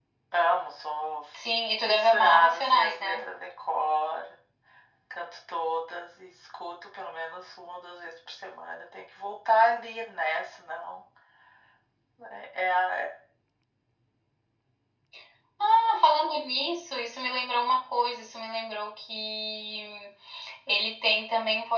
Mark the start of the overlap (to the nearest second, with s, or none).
2 s